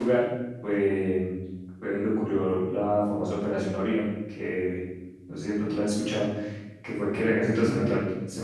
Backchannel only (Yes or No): Yes